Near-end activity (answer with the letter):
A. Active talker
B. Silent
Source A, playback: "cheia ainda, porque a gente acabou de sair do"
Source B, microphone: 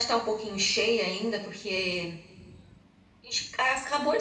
B